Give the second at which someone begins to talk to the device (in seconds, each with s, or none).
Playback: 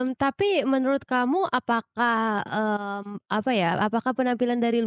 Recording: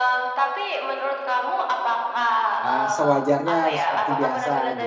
2.6 s